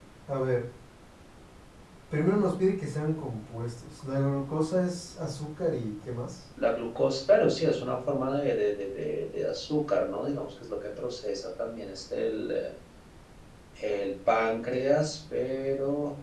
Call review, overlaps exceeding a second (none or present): none